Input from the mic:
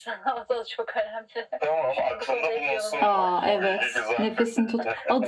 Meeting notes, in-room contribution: present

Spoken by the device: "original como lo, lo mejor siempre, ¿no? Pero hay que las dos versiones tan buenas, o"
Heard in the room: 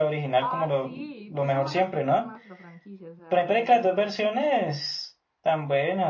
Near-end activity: present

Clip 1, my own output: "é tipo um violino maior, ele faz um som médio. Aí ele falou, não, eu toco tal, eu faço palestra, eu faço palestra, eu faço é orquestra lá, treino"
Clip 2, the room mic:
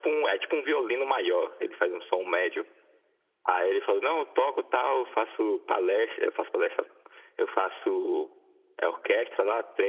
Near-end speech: none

